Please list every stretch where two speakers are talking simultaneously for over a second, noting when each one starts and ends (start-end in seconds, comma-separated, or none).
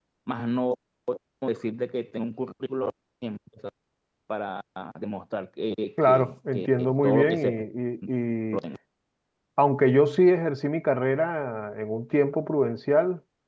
6.0-7.4